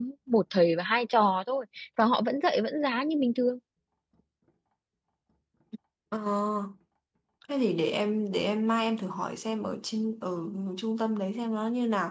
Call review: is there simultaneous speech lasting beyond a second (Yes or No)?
No